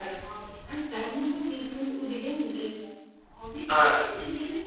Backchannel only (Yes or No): Yes